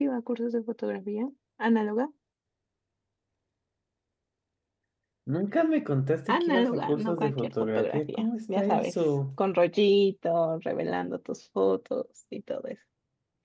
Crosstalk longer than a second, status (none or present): present